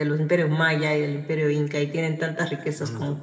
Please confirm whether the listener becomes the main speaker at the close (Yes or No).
No